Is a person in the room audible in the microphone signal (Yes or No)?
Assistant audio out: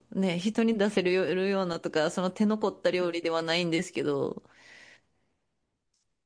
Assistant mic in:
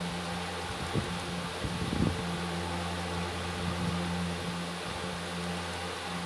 No